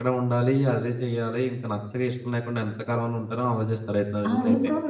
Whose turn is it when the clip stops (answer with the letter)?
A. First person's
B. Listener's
B